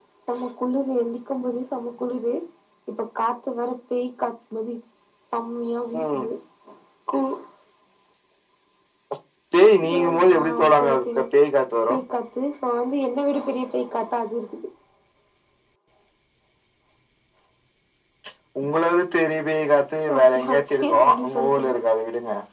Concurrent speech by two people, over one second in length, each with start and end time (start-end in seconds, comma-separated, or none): 9.8-11.1, 20.1-21.8